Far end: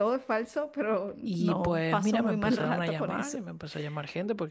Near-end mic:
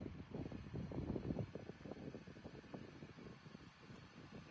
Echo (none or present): none